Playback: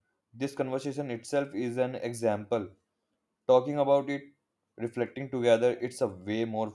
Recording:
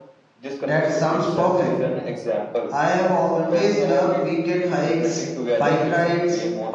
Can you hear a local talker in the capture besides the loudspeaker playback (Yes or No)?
Yes